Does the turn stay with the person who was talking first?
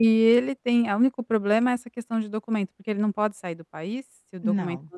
No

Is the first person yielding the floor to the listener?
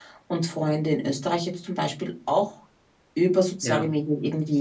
No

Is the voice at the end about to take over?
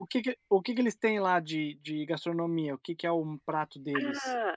Yes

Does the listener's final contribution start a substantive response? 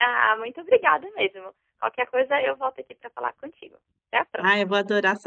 Yes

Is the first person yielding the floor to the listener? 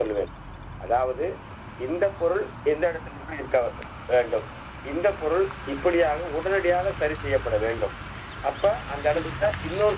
No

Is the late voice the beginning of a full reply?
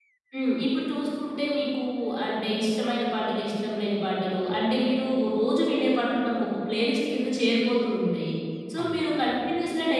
No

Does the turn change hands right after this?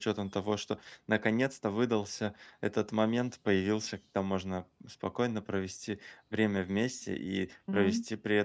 No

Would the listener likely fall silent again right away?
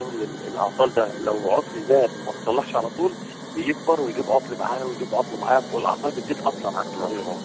No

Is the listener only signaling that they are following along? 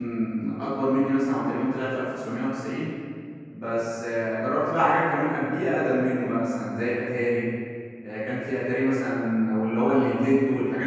Yes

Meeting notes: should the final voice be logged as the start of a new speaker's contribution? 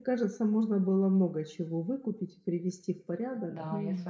Yes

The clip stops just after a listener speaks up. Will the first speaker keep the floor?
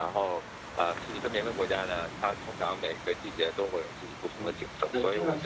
No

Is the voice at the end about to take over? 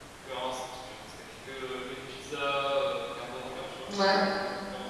No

